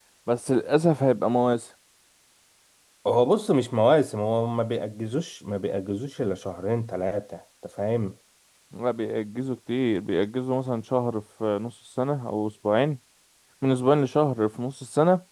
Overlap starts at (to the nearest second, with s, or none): none